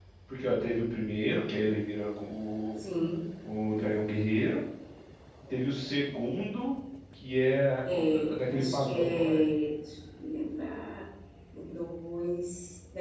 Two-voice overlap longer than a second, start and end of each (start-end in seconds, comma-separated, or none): 7.9-9.4